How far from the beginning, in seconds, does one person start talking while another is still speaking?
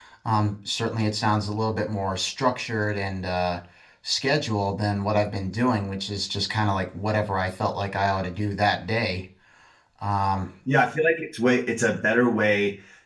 none

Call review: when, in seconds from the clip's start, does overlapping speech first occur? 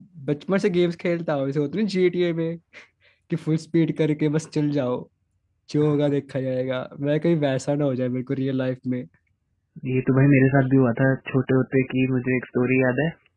none

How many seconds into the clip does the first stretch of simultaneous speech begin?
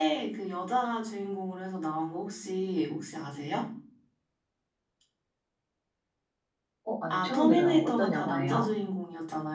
7 s

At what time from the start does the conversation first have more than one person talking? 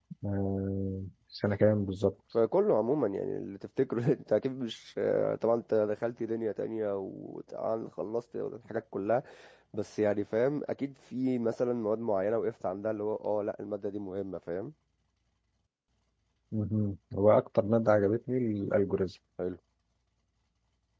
none

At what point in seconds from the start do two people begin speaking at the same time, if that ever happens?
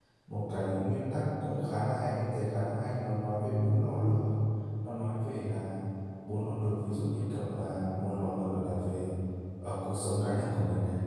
none

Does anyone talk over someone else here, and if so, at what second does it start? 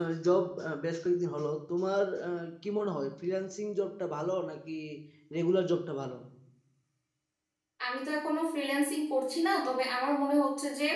none

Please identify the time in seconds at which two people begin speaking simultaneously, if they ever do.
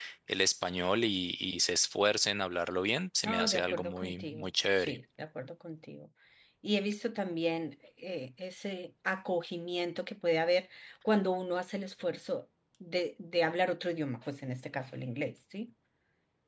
3 s

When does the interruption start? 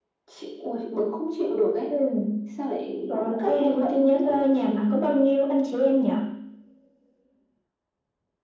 3 s

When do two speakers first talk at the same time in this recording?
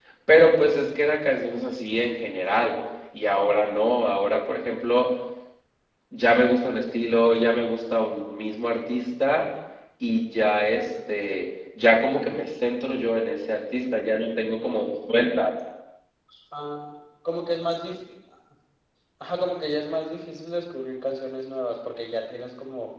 none

